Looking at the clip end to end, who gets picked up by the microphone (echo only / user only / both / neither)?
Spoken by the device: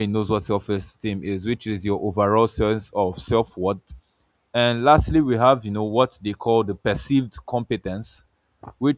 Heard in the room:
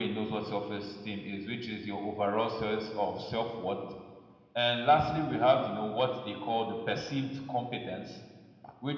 echo only